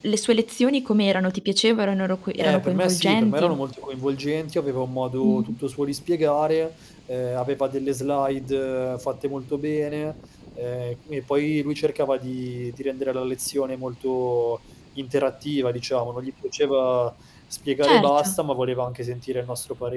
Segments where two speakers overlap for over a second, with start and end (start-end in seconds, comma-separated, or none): 2.4-3.6